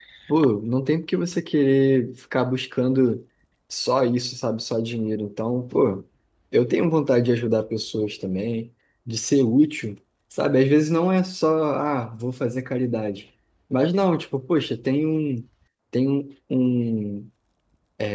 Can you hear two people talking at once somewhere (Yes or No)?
No